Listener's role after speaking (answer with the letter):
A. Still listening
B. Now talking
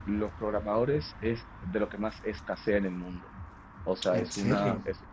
A